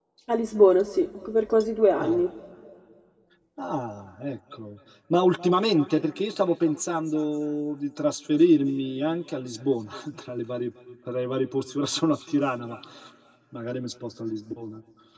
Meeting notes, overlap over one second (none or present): none